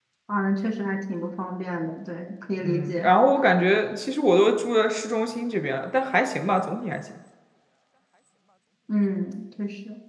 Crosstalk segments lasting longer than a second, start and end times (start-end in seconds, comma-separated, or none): none